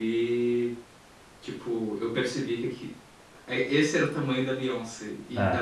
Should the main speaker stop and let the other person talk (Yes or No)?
No